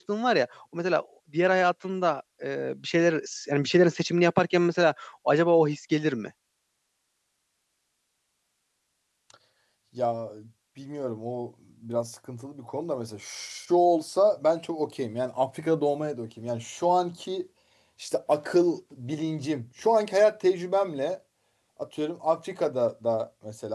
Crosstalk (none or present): none